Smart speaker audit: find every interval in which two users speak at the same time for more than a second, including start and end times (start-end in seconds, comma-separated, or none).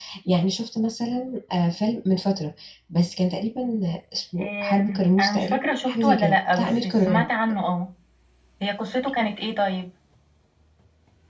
4.4-7.3